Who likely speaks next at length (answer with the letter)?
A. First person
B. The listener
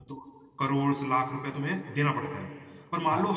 A